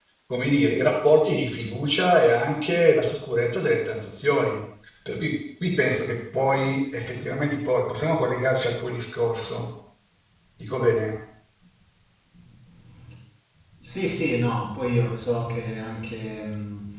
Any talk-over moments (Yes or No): No